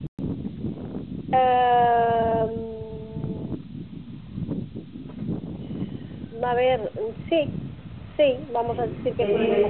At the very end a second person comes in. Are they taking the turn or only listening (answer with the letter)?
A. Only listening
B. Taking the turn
B